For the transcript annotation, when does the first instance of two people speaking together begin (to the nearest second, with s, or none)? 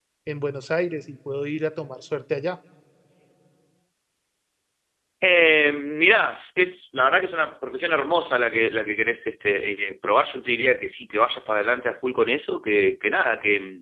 none